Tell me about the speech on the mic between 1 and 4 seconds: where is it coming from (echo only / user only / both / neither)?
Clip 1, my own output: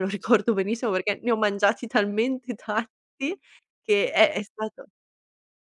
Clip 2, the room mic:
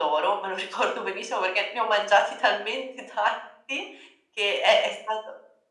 echo only